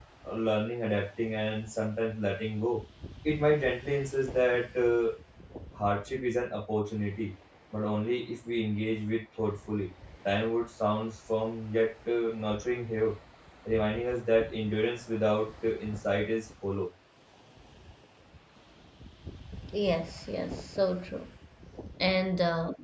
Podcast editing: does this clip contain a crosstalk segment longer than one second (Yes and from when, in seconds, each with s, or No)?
No